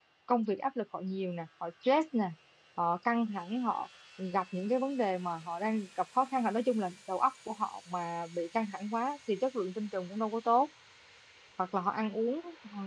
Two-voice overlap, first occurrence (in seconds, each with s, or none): none